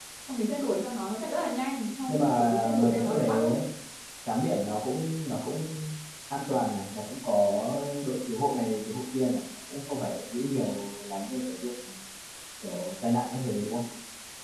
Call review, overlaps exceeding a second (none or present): present